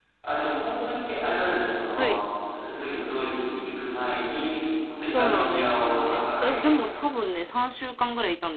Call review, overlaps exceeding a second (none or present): present